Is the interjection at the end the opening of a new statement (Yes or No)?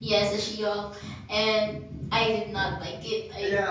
Yes